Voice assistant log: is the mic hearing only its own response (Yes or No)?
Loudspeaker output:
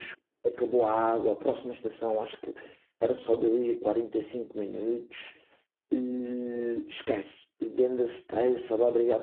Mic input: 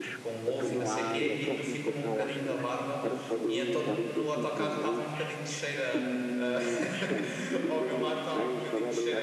No